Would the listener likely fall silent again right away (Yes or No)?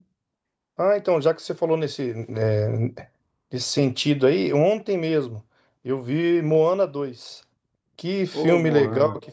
Yes